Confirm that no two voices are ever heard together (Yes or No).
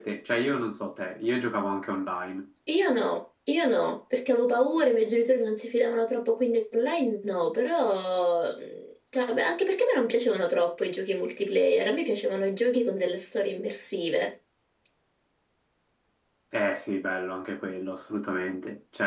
Yes